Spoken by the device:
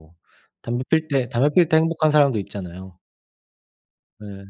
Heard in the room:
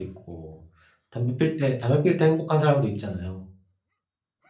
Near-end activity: none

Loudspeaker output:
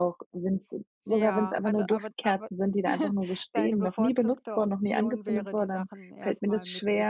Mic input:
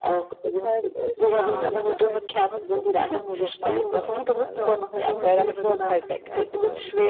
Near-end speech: present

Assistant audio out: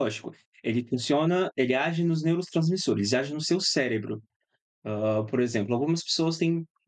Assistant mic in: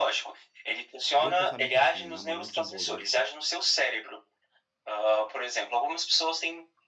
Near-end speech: present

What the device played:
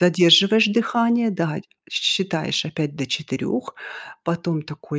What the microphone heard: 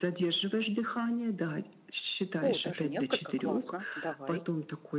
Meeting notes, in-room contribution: present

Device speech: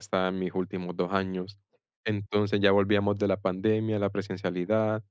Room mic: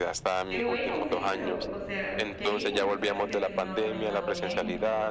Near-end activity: present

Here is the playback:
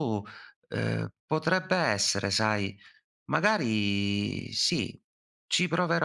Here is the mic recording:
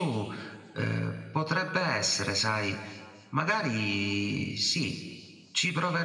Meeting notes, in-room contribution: none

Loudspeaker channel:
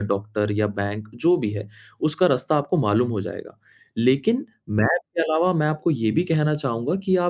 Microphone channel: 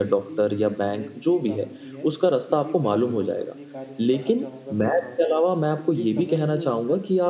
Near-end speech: present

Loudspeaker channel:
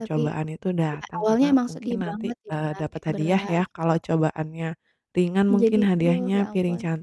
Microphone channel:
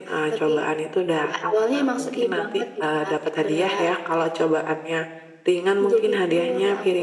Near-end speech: none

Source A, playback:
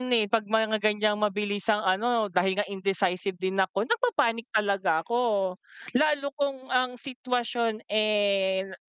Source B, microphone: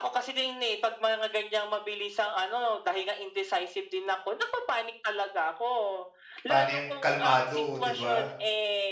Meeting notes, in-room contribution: present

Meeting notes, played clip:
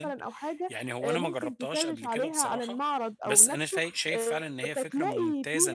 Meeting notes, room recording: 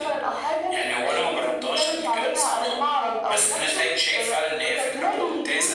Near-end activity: none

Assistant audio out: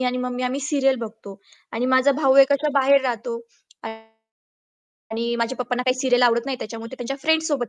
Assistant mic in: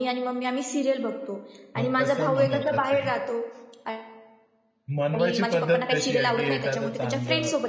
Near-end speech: present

